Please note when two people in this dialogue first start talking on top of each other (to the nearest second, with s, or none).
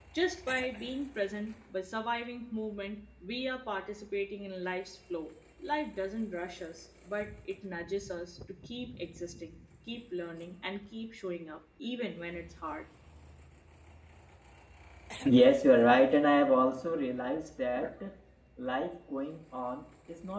none